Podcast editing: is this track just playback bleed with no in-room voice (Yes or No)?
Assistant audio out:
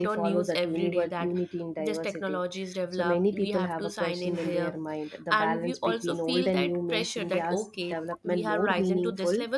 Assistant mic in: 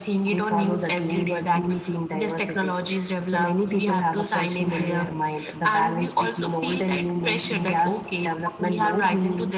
Yes